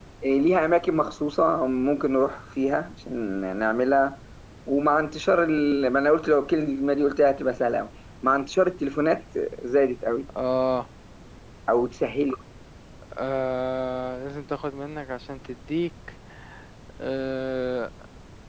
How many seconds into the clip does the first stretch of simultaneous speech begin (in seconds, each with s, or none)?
none